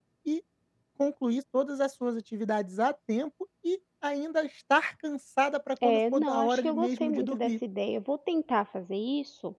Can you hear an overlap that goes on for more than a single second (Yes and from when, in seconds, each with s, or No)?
Yes, from 5.8 s